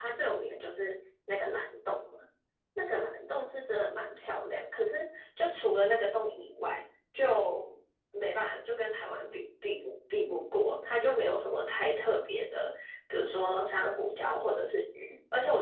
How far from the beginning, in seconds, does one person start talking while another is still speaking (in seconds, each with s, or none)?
none